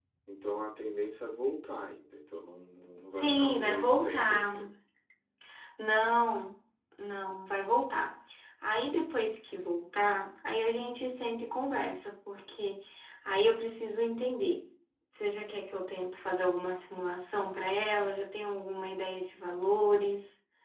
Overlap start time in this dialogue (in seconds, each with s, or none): 3.1 s